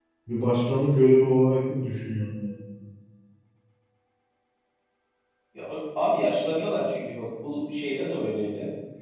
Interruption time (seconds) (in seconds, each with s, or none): none